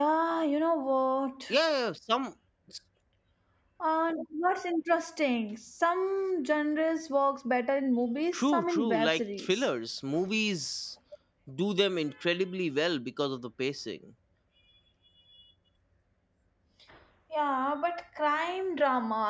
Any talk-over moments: Yes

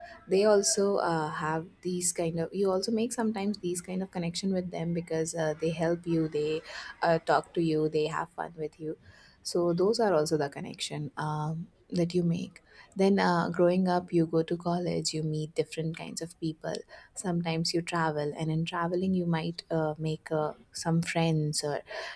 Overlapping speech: No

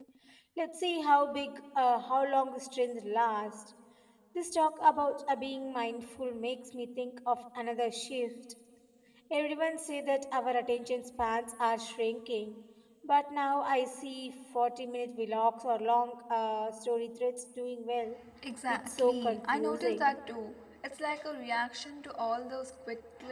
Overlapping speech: Yes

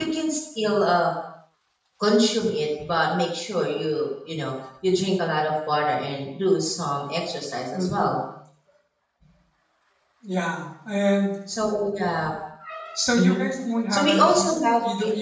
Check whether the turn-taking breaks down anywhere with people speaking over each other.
Yes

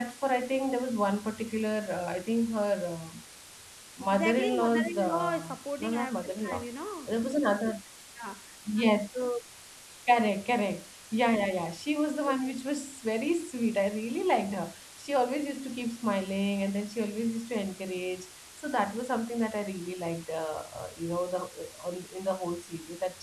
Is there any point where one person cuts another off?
Yes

